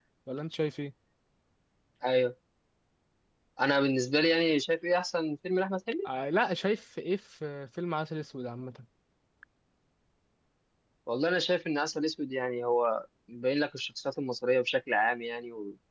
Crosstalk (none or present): none